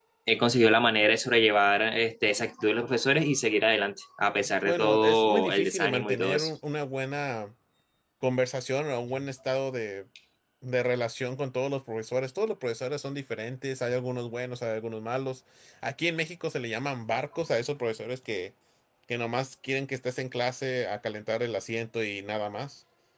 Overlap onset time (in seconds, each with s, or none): 4.7 s